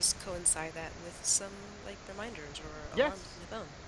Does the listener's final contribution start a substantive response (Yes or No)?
Yes